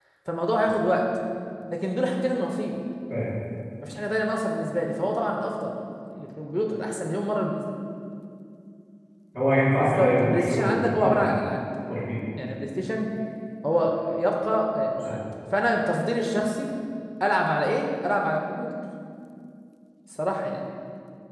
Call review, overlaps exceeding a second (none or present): present